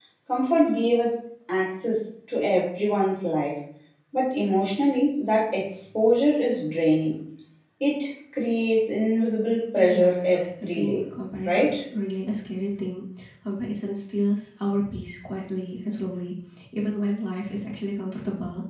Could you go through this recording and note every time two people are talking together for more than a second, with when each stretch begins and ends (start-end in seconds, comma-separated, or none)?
9.8-11.0